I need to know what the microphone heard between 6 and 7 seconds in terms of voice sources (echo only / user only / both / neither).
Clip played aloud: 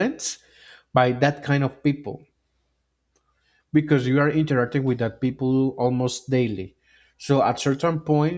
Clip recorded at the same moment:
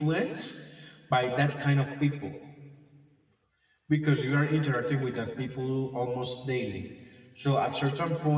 echo only